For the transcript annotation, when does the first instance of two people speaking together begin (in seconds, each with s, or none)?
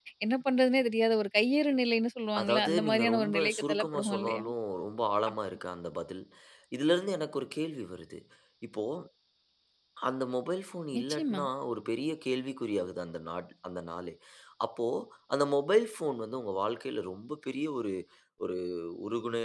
2.4 s